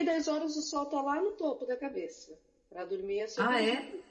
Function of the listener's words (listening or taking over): listening